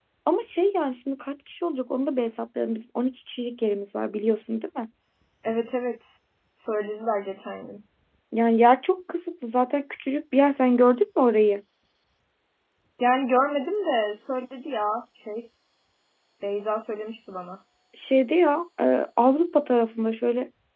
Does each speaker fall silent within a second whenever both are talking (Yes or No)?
Yes